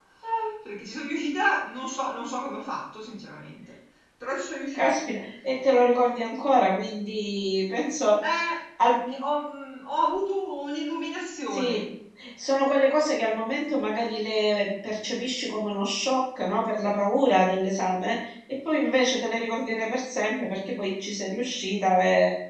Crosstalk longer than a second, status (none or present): none